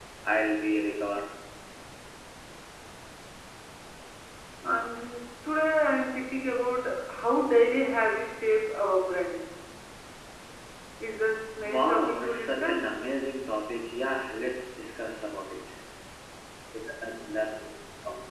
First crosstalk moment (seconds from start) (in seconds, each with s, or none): 11.6 s